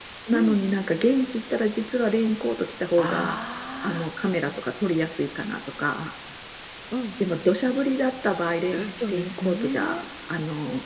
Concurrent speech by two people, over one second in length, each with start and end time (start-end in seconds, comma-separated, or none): 8.7-10.0